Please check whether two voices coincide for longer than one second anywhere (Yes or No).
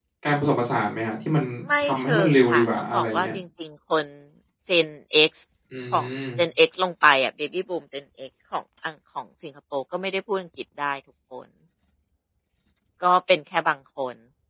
Yes